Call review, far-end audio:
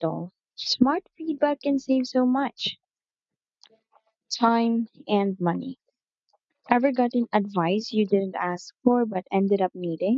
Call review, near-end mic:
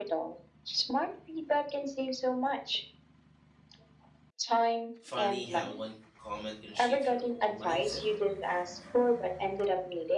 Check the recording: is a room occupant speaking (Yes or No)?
Yes